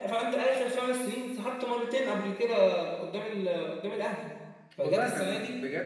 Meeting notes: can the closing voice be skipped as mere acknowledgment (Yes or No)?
No